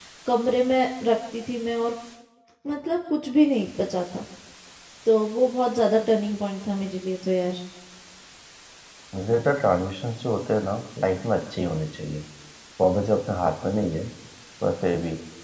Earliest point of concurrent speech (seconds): none

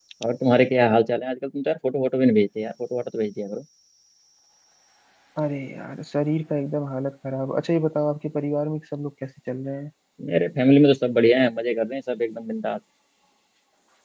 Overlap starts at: none

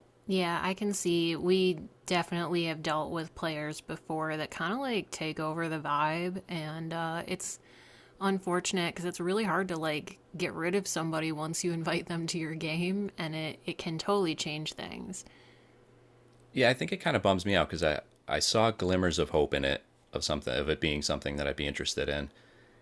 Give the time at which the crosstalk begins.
none

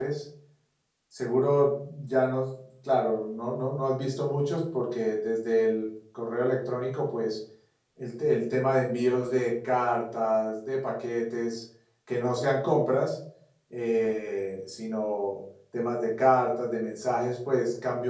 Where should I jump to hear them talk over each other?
none

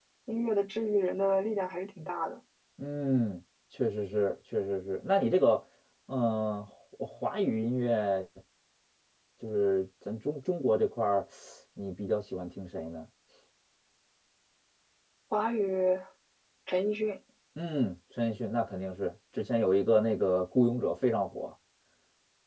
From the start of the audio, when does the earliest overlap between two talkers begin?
none

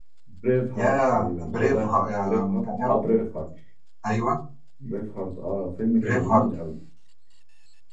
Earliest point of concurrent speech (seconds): 1 s

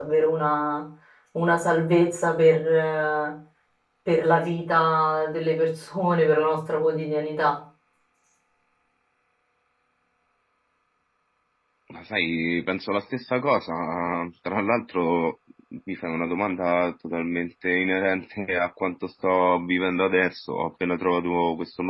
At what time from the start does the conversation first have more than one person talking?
none

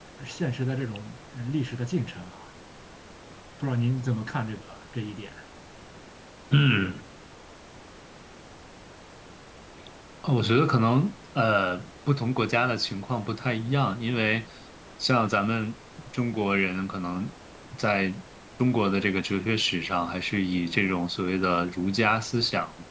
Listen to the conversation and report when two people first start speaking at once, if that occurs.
none

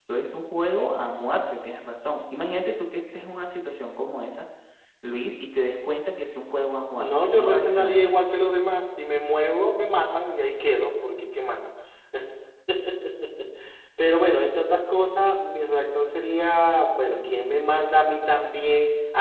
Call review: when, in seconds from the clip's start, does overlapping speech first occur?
7 s

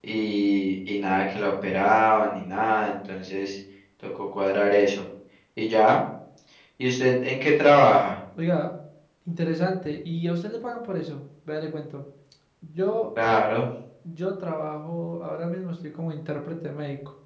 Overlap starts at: none

